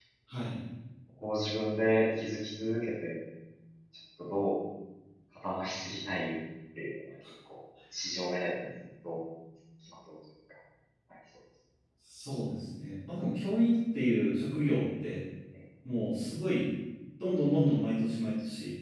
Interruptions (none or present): none